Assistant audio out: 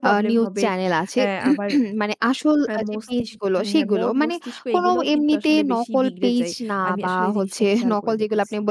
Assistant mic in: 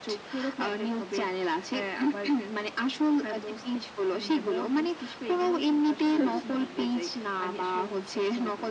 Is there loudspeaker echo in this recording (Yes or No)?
Yes